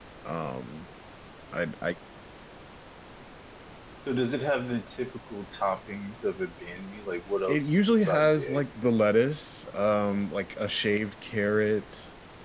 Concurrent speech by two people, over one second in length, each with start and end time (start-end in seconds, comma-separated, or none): 7.5-8.7